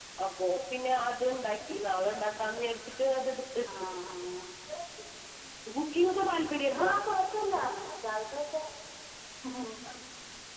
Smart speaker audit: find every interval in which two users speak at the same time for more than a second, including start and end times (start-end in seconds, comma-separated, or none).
none